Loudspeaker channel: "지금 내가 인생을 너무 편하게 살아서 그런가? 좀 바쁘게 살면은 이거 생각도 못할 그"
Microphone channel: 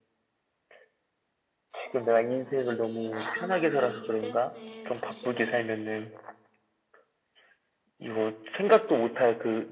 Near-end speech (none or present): present